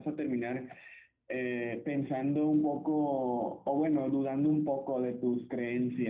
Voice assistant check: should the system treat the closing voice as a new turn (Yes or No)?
Yes